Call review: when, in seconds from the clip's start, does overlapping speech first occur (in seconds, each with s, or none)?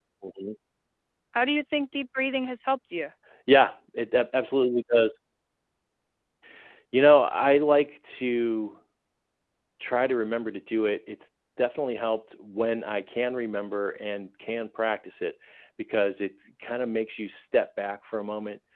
none